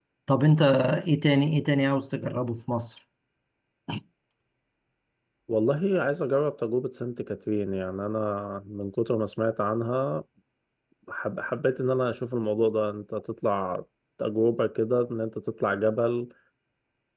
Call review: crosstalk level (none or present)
none